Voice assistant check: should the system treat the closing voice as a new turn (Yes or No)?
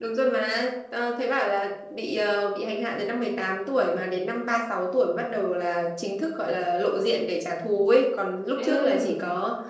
No